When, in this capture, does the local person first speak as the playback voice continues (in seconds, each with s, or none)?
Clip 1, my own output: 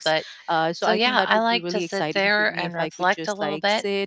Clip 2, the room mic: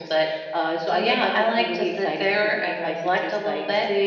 none